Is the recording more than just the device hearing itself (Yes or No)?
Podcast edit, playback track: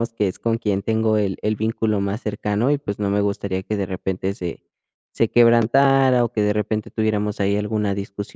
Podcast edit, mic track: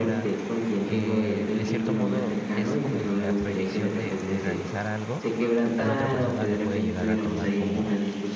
Yes